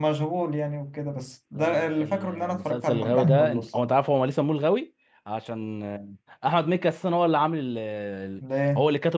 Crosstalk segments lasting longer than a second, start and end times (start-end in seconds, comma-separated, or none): 1.6-4.0